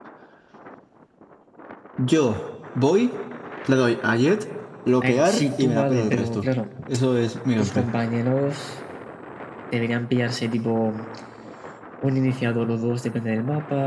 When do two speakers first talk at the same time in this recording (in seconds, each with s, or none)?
5.0 s